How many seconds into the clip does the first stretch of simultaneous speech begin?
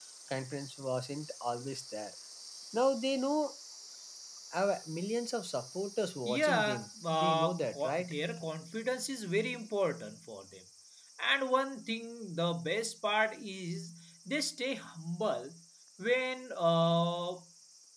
6.2 s

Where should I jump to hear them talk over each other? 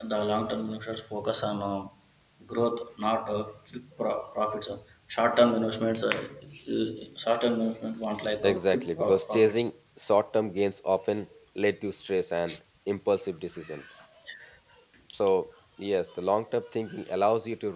8.4 s

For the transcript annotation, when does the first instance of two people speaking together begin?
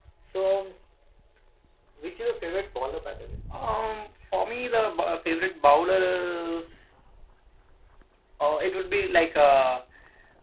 none

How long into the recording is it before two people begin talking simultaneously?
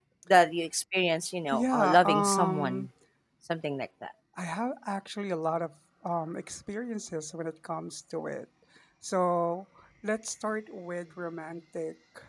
1.5 s

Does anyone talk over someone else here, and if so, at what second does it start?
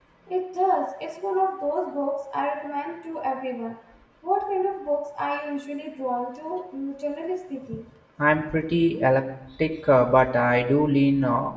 none

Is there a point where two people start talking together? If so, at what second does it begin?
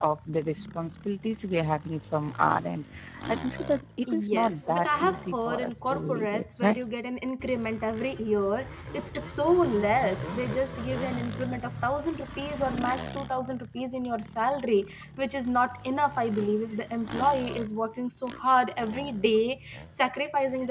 4.1 s

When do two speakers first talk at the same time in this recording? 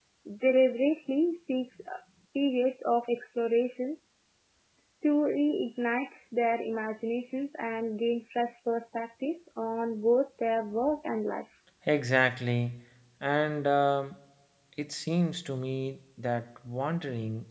none

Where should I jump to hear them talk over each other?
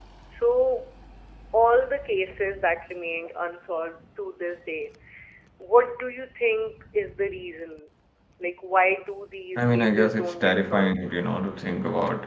9.6 s

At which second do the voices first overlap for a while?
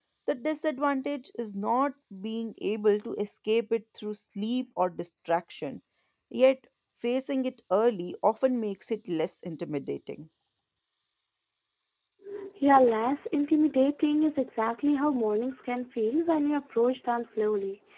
none

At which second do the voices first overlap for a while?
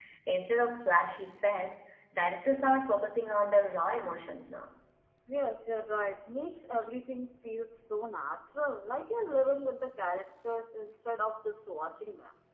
none

